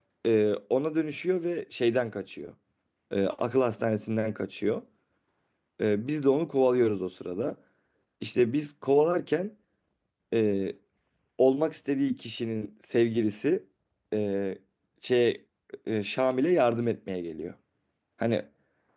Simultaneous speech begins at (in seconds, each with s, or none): none